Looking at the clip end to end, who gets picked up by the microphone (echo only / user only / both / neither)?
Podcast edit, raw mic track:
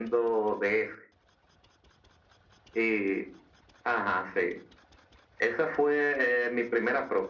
echo only